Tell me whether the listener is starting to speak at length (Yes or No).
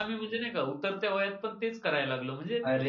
Yes